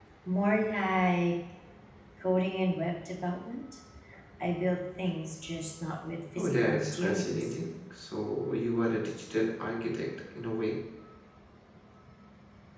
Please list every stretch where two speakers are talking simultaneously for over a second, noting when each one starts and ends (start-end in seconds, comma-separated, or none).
6.4-7.6